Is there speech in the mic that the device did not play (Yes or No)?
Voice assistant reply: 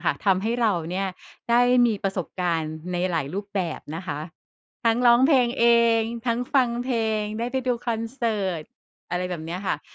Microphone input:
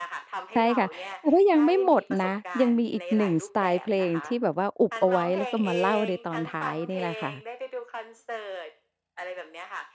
Yes